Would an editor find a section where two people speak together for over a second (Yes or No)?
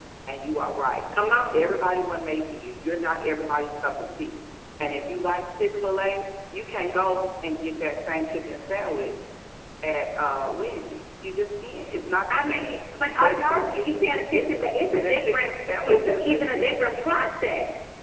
Yes